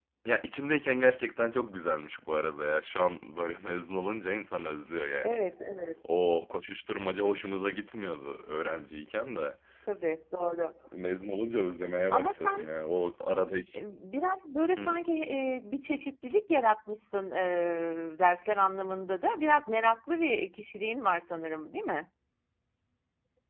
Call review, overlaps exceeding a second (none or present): none